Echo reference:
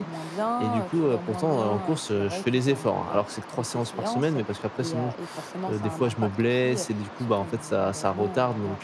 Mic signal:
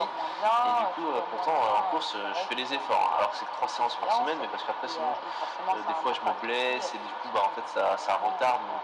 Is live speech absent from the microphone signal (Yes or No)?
Yes